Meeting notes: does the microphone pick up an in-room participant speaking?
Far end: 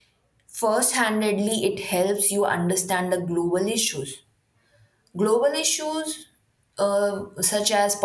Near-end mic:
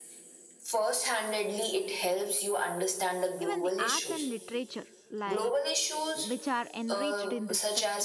Yes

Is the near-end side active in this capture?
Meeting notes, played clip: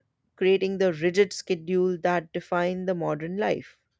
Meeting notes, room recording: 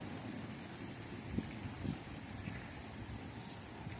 No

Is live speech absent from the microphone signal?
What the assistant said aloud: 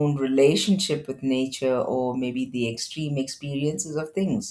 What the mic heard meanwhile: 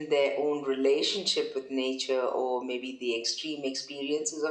Yes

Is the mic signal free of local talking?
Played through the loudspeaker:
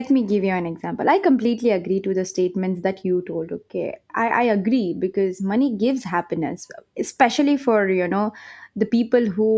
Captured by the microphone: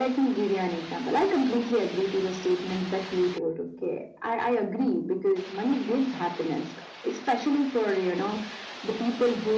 Yes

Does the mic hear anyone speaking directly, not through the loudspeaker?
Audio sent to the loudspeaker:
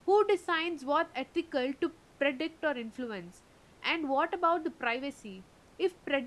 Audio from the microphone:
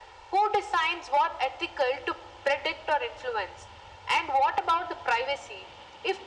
No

